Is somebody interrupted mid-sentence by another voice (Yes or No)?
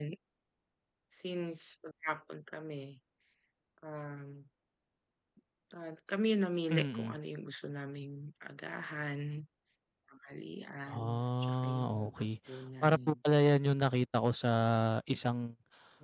Yes